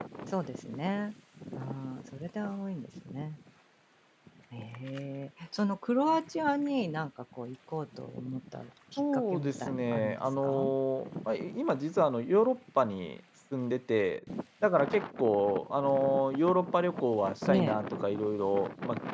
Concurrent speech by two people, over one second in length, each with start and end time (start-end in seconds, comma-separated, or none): 9.0-10.7